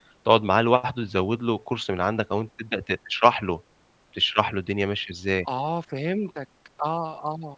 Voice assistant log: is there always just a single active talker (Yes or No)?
Yes